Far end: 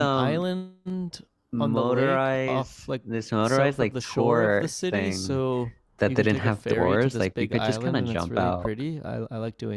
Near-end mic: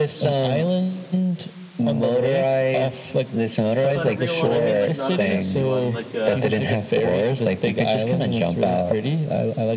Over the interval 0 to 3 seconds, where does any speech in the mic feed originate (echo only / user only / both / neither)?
echo only